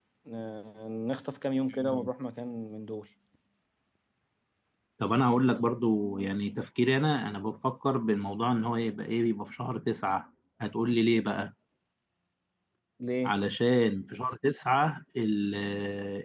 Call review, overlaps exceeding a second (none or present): none